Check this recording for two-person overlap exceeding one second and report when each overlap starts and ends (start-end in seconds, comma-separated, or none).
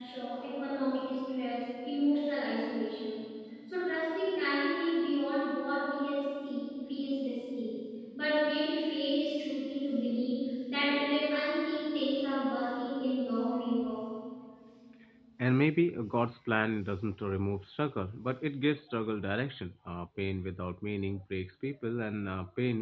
none